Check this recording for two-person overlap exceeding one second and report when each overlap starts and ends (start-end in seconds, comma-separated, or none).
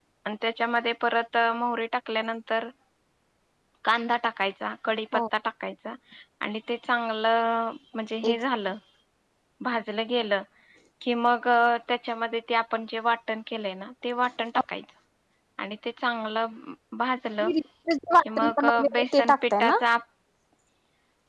18.2-19.8